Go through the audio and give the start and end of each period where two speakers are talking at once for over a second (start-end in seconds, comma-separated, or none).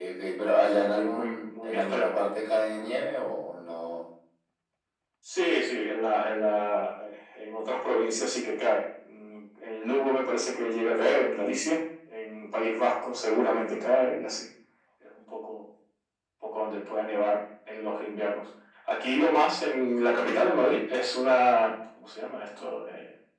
0.7-2.1